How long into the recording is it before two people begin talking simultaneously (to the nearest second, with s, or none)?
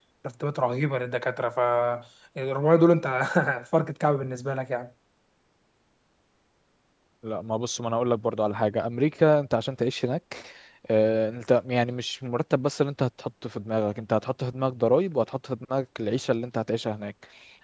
none